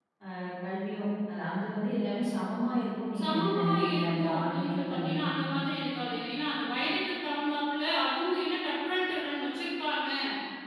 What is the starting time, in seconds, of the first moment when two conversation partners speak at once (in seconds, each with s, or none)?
3.1 s